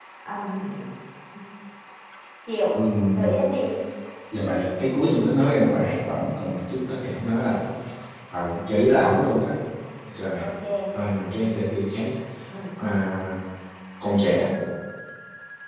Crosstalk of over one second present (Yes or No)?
No